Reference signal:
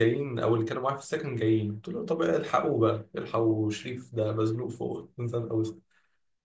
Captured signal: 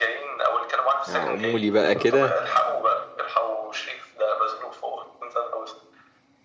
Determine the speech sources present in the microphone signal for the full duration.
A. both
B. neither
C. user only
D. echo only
A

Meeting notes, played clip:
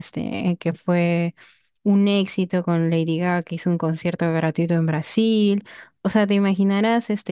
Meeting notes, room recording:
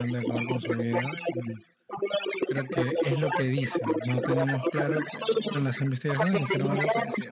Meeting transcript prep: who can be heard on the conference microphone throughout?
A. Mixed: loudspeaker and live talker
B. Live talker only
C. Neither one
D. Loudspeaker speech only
A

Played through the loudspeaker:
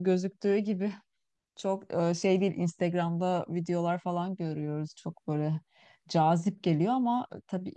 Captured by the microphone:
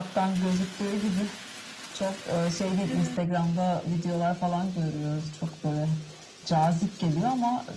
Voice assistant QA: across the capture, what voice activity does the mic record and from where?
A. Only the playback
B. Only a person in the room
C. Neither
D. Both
D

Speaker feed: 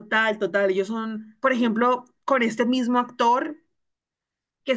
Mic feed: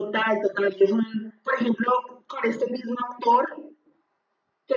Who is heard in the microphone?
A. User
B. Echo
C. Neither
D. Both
B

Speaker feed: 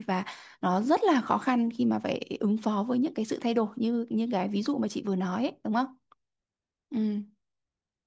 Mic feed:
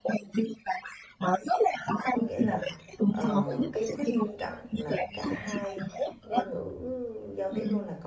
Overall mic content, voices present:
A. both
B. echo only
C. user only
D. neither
A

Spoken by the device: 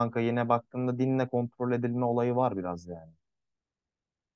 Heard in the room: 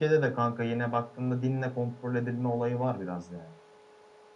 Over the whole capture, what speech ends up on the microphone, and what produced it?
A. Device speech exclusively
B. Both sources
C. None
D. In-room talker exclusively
A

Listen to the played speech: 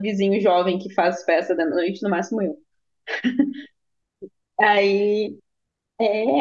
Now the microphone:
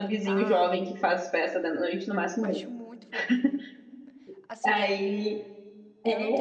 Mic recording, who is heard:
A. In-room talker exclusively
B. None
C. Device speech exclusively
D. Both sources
D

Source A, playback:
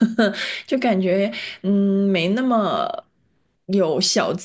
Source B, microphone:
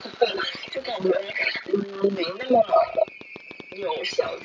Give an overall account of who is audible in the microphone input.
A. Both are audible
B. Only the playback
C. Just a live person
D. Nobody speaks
B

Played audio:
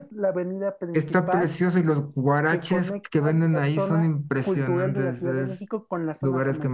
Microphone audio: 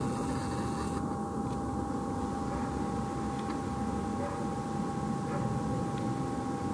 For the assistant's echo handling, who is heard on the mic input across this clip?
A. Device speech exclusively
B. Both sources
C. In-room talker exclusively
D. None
D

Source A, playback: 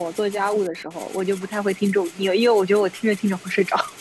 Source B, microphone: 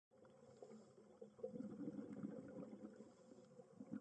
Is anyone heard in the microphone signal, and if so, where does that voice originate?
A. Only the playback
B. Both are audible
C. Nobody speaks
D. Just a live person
C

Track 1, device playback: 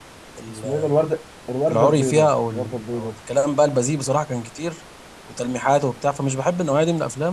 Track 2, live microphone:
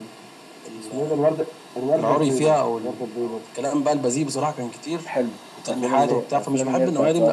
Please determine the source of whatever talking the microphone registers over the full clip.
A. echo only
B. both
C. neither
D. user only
B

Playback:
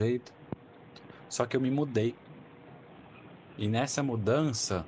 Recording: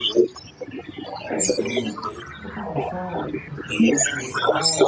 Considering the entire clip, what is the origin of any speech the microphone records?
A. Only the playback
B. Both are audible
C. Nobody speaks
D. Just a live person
B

